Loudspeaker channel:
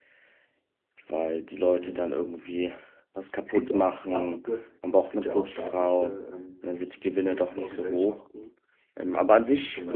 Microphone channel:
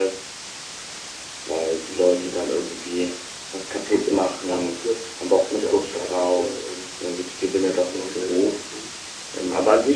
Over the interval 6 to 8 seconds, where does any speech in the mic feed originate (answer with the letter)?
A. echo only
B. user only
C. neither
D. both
A